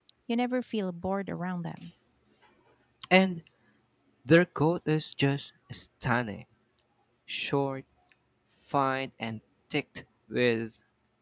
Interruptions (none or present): none